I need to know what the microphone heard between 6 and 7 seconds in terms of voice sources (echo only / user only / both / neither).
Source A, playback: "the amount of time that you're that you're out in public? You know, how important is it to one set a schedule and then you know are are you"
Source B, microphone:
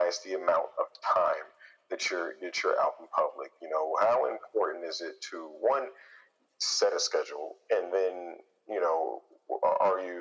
echo only